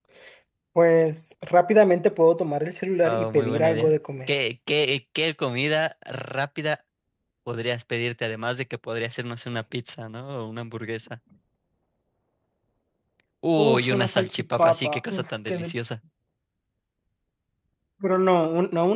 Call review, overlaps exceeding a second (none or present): present